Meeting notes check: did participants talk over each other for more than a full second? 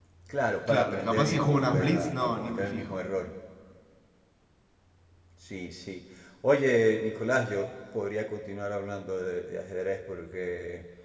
Yes, from 0.7 s

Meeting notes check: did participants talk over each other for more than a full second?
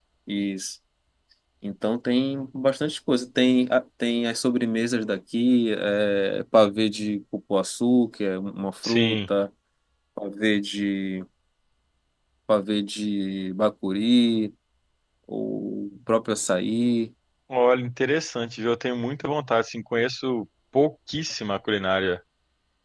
No

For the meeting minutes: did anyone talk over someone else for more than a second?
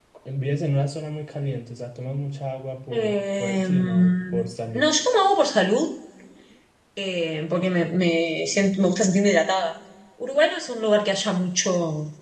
Yes, from 2.9 s

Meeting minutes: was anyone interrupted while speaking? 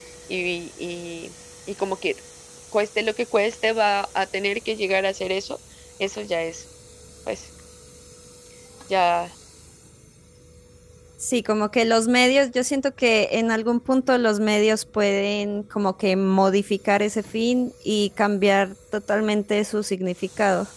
No

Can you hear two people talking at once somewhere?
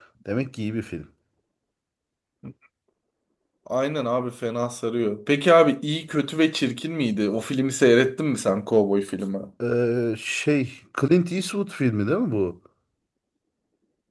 No

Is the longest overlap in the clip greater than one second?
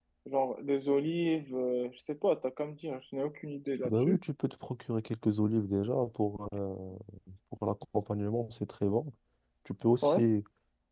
No

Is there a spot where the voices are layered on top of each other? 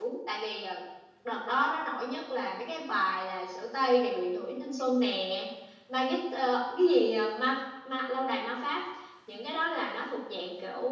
No

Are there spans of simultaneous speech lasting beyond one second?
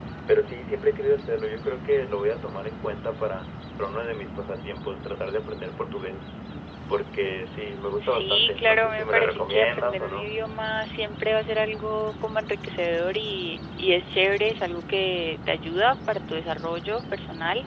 Yes, from 8.0 s

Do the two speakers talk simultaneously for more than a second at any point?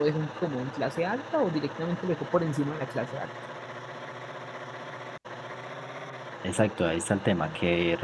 No

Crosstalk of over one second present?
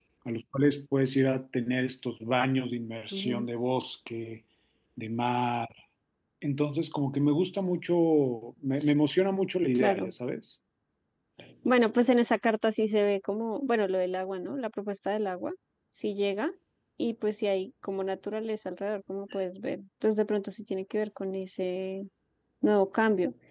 No

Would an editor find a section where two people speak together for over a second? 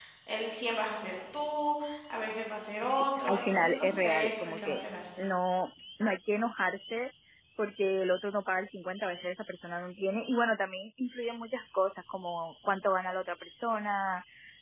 Yes, from 2.8 s

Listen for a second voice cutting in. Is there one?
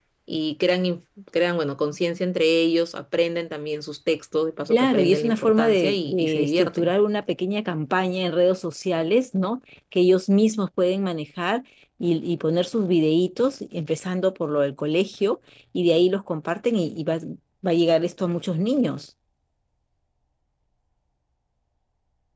Yes, from 4.7 s

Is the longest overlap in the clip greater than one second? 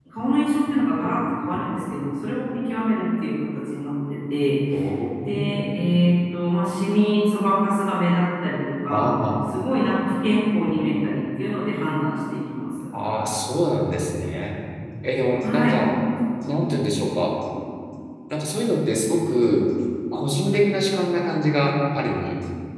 No

